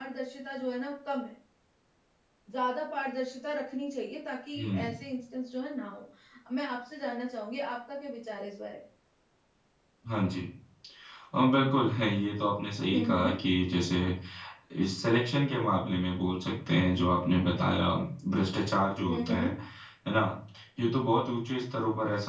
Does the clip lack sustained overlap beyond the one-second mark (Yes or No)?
Yes